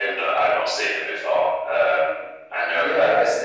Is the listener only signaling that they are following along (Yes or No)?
No